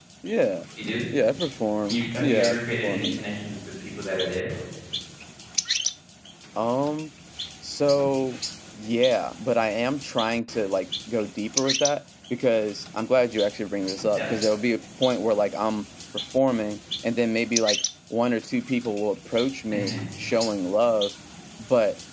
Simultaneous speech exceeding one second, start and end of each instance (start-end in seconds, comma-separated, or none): 1.9-3.2